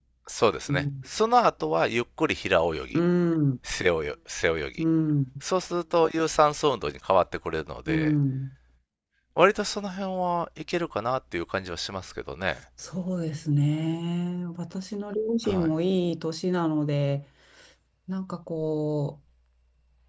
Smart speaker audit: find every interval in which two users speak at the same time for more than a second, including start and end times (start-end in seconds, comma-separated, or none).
none